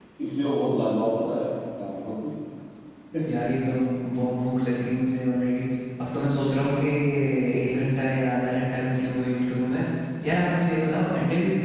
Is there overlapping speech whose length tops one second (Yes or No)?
No